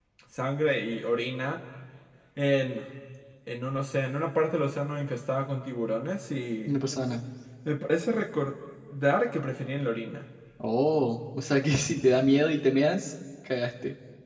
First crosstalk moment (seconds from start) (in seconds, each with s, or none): none